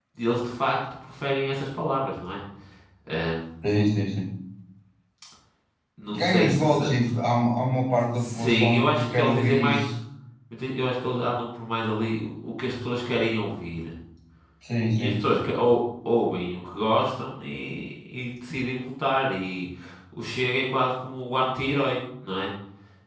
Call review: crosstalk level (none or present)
present